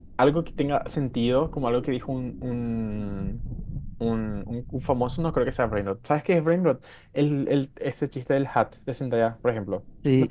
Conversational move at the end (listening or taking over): taking over